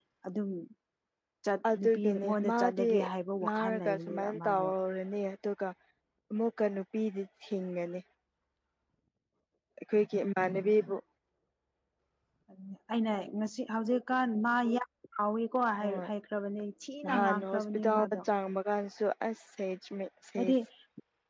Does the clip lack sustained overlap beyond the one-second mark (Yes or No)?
No